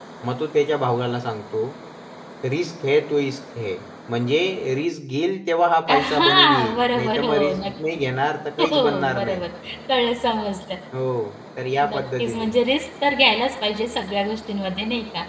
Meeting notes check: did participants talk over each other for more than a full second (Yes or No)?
Yes